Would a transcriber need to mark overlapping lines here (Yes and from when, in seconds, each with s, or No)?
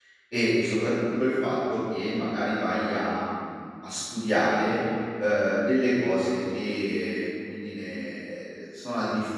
No